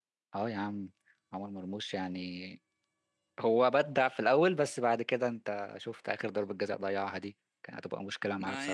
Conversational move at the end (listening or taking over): taking over